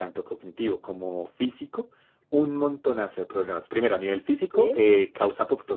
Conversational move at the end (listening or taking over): listening